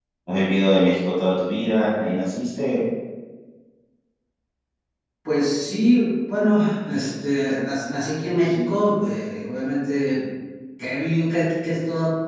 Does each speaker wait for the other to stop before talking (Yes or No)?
Yes